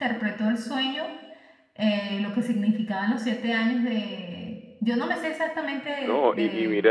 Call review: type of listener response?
taking over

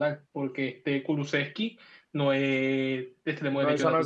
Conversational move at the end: taking over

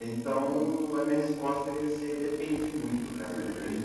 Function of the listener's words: listening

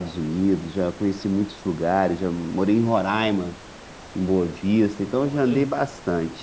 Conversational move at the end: listening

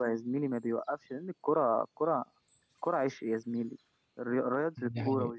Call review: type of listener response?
listening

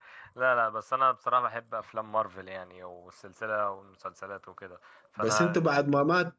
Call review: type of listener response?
taking over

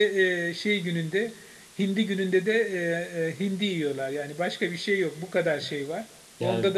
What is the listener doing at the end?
listening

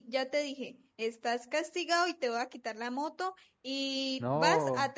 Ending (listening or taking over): listening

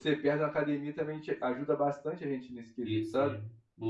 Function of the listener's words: taking over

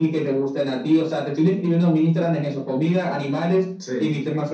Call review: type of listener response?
listening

